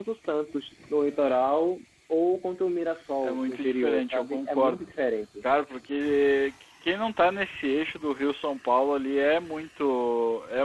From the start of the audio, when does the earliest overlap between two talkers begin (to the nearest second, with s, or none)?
3 s